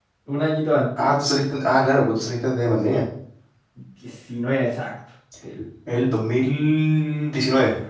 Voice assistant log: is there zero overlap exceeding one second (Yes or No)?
Yes